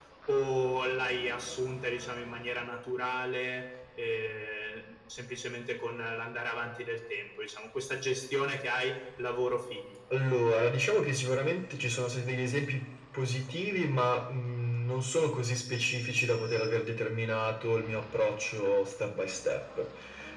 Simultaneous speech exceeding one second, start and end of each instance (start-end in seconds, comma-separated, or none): none